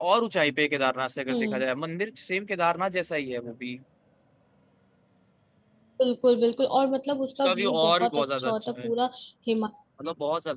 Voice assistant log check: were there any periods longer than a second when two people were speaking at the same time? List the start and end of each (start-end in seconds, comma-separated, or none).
7.4-8.9